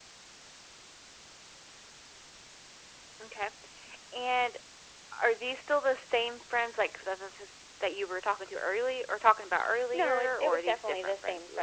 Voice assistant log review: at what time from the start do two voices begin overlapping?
9.9 s

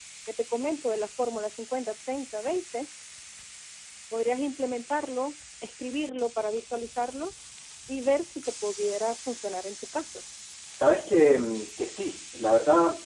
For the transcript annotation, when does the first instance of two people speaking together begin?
none

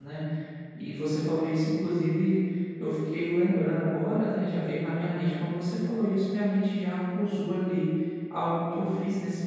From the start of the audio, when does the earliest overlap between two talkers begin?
none

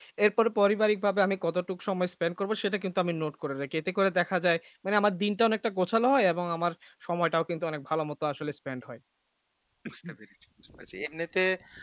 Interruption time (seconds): none

